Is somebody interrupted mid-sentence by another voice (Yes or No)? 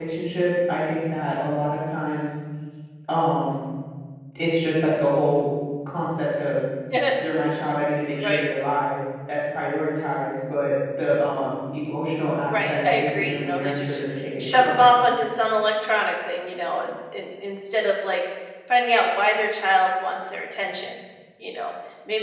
Yes